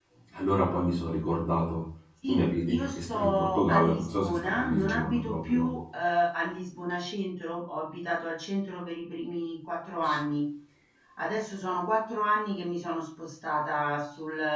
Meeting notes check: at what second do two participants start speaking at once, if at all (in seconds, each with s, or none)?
2.2 s